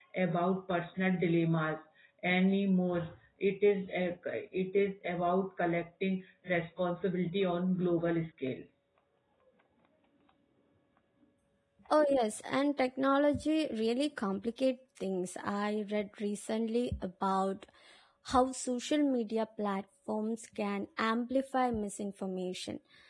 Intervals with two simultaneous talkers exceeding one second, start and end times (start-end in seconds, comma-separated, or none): none